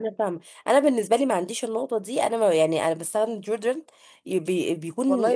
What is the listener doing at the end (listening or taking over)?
taking over